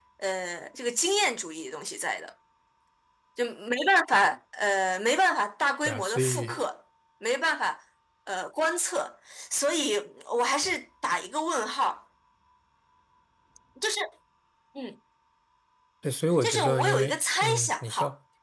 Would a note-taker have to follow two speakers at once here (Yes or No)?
Yes